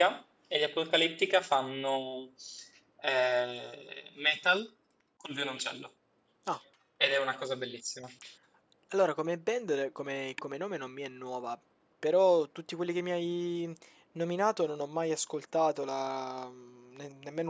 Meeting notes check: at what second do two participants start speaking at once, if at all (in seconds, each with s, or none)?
none